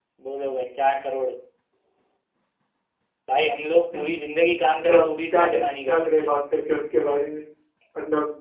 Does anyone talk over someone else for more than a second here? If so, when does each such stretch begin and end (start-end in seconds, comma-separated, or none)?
4.7-6.3